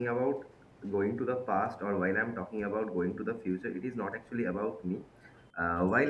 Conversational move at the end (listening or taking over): listening